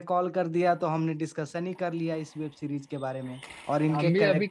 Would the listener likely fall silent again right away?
No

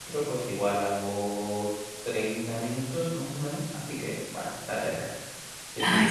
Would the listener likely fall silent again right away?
No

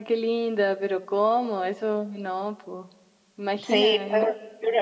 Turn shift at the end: Yes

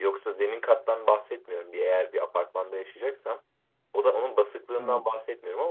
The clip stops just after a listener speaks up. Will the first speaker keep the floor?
Yes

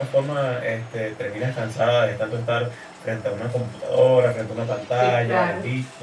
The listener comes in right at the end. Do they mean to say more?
Yes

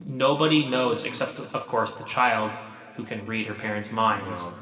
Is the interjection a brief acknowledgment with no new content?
Yes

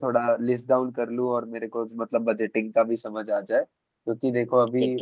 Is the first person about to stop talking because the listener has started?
No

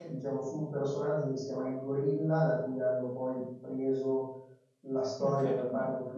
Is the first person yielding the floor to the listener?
No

